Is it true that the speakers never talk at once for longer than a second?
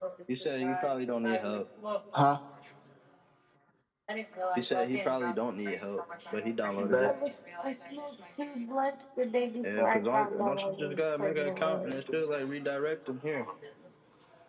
No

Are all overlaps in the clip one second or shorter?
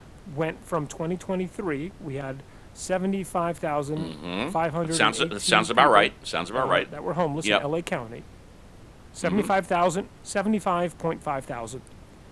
No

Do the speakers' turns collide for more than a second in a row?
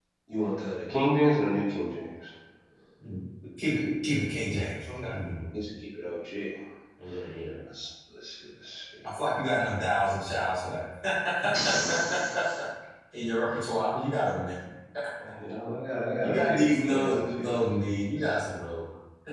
Yes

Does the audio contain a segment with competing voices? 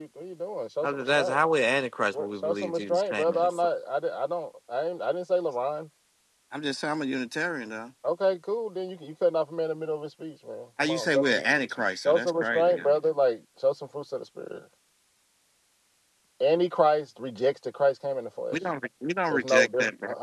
Yes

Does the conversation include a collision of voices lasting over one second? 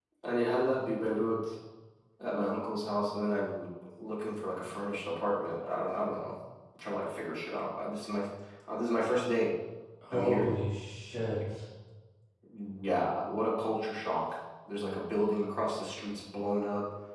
No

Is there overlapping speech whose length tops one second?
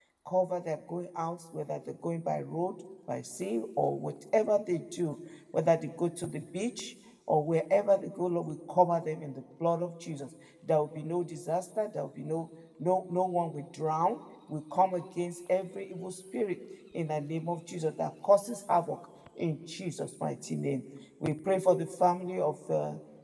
No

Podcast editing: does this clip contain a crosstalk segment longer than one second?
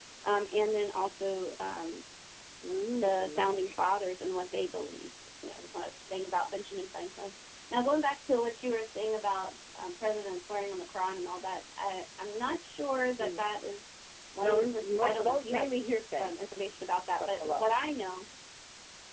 Yes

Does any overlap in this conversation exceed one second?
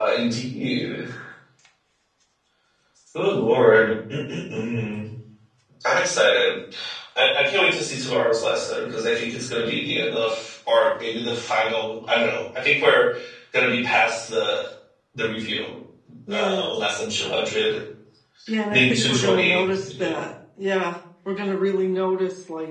Yes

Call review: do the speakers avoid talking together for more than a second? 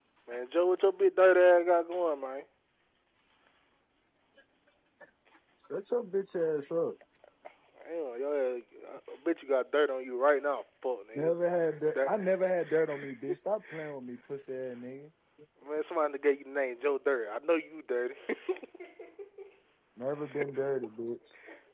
Yes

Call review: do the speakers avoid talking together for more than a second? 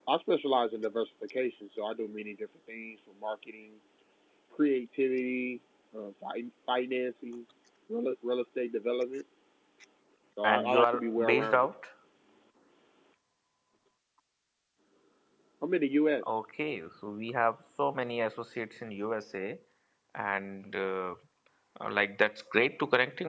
No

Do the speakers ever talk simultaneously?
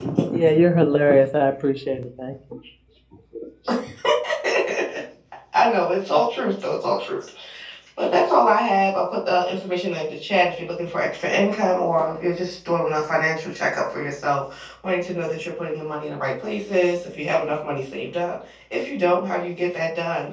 No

